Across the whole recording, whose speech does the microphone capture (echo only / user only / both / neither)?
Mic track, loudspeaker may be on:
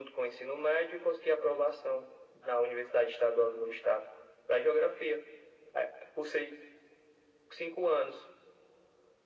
echo only